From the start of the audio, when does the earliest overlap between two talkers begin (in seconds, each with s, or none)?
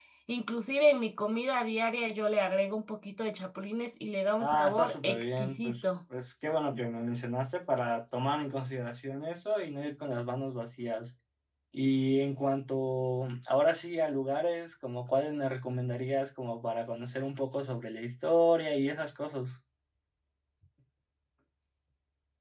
4.4 s